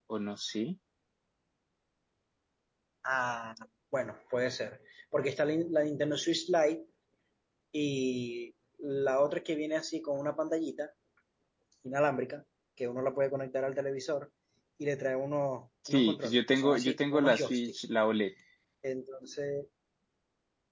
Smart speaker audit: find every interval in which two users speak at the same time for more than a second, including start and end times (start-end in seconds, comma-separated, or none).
15.9-17.7